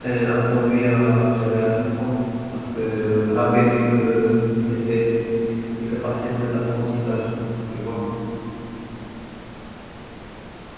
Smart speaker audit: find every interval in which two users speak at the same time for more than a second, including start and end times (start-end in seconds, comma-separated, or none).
none